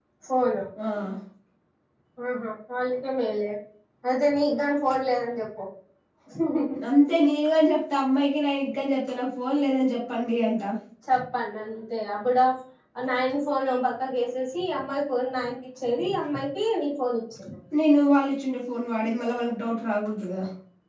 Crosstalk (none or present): none